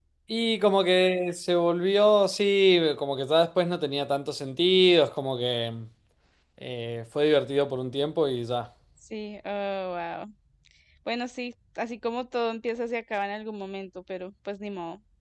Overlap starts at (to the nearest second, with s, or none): none